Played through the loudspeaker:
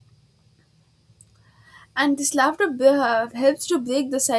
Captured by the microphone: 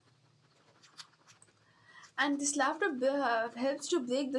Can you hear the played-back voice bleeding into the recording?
Yes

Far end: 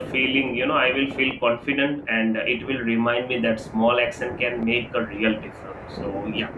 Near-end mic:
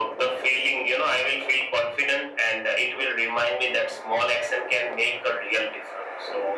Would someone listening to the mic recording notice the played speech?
Yes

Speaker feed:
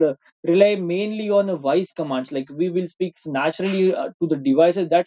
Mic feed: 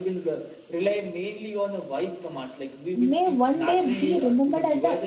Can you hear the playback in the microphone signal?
Yes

